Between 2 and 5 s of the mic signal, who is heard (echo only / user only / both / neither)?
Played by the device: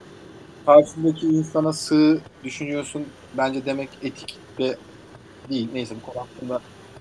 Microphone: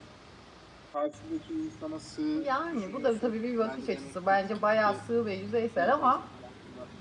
both